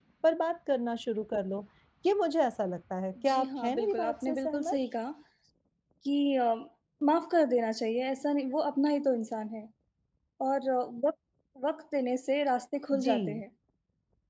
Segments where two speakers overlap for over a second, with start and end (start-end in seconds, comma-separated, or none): 3.3-4.8